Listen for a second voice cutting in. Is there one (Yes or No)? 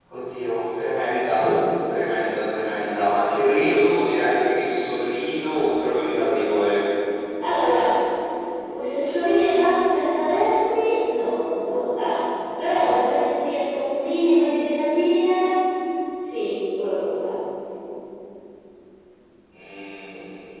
No